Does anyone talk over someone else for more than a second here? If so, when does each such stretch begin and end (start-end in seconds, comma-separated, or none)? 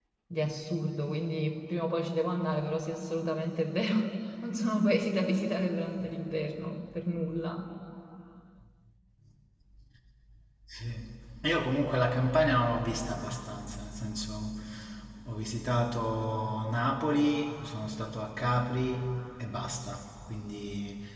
none